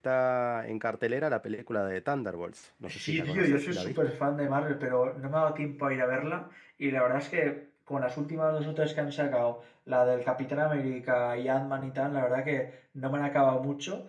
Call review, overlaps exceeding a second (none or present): present